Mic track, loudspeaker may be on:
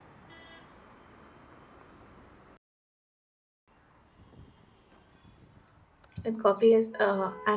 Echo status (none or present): none